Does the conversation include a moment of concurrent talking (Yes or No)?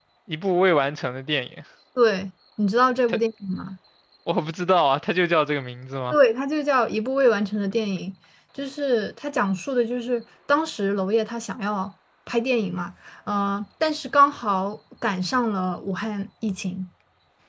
No